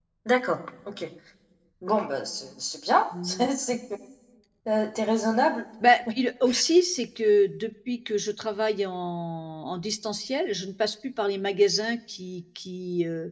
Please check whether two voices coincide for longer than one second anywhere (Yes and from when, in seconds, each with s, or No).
No